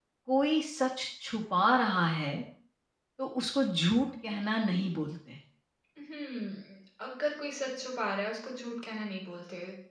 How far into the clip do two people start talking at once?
none

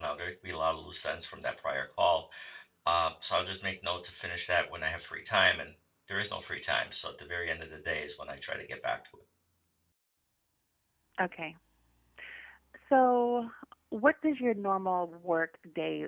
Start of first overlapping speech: none

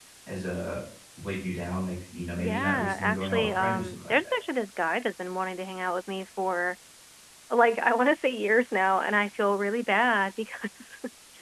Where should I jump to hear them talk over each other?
2.4 s

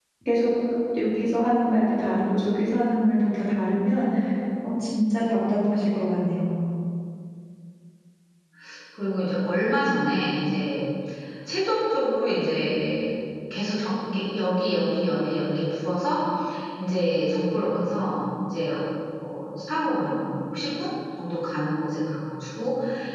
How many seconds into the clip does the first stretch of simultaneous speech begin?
none

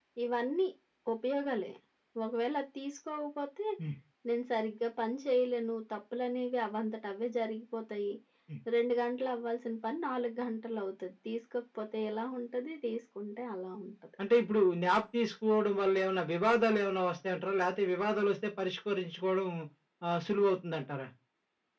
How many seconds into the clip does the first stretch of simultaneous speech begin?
none

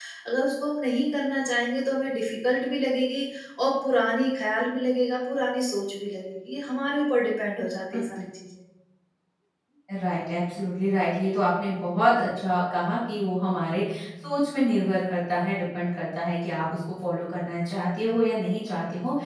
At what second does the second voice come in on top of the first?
none

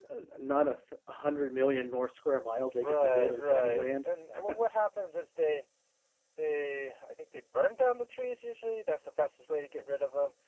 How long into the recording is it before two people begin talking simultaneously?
2.7 s

